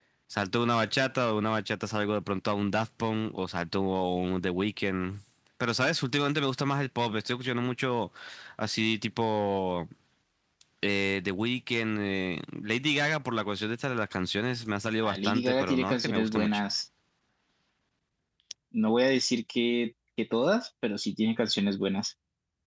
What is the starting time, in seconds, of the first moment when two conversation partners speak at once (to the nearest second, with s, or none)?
15 s